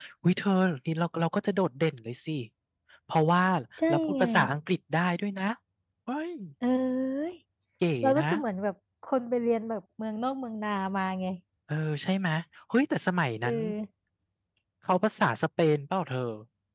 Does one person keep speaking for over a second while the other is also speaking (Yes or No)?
No